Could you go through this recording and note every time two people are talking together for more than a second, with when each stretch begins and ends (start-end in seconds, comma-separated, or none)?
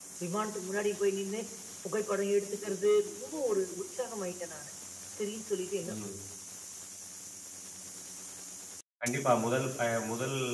none